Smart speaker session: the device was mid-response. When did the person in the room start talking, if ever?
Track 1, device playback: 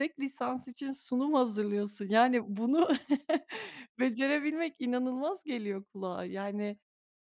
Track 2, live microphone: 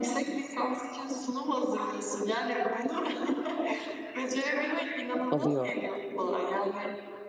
5.3 s

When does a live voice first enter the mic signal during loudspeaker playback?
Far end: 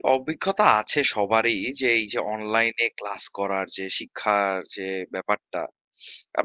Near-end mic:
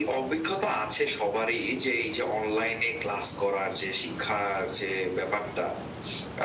none

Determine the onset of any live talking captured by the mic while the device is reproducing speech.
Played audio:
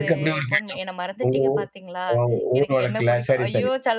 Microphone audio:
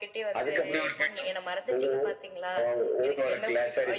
none

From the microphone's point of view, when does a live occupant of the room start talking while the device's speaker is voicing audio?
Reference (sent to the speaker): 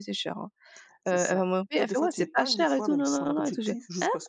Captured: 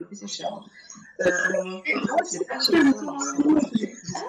none

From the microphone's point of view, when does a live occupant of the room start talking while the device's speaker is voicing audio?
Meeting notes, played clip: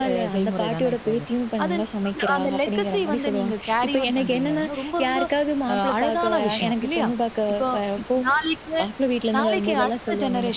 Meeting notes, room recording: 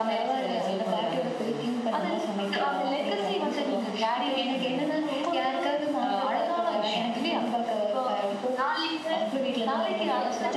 9.1 s

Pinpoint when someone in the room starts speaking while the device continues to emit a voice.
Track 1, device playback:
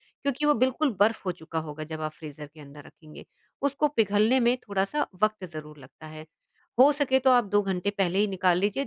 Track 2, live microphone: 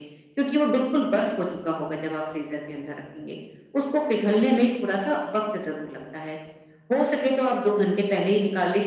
none

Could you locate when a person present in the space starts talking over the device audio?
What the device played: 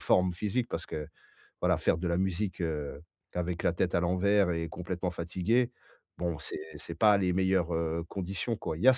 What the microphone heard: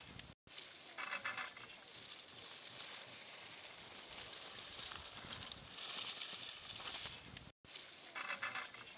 none

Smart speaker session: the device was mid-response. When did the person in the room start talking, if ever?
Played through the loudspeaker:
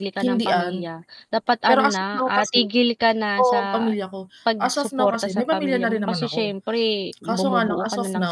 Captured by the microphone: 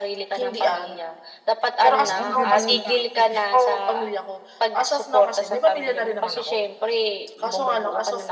2.0 s

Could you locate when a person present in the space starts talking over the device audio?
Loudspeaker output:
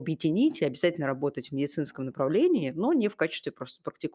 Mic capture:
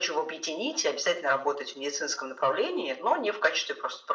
none

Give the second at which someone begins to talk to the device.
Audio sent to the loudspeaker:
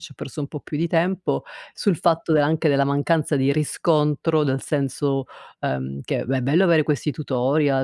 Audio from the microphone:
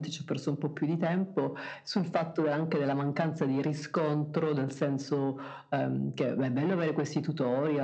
none

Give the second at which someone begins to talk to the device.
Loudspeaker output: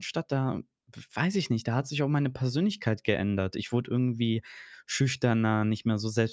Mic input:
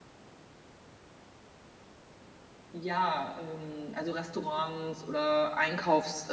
2.7 s

